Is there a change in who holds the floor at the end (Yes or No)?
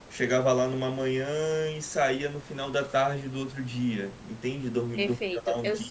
Yes